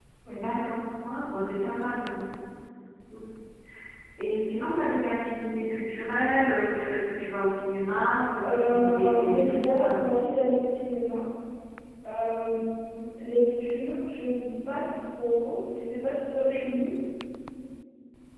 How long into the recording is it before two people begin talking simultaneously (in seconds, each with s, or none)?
8.4 s